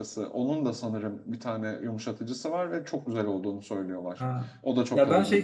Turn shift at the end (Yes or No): Yes